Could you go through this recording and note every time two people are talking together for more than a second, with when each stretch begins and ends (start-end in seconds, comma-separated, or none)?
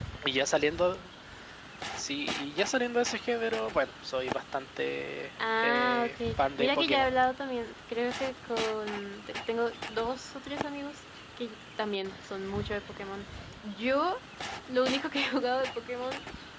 5.6-7.1